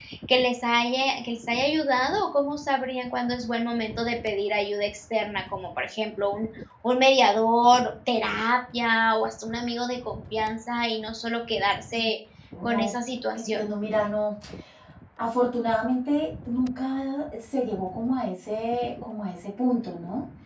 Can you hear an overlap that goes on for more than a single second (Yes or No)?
No